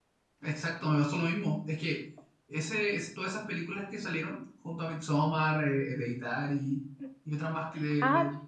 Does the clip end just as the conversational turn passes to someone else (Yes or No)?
Yes